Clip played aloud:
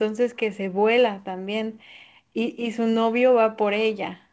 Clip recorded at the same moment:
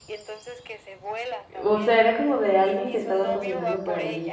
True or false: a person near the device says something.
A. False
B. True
B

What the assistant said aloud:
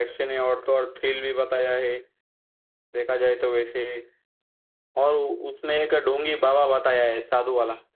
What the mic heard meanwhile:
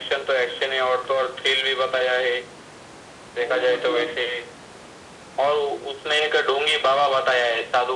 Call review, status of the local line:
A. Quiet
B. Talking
B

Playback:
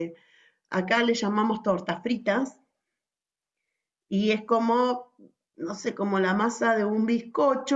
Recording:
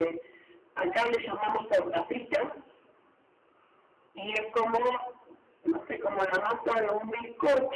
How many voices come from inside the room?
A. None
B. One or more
A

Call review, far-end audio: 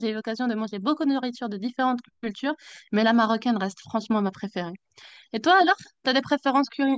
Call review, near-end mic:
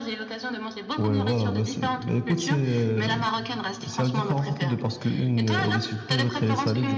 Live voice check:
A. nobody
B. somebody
B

